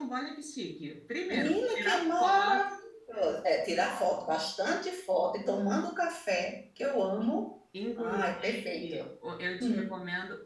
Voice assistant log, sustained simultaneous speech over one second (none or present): present